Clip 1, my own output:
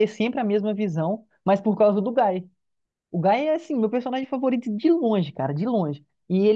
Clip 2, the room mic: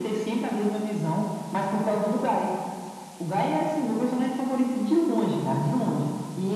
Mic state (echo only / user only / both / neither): echo only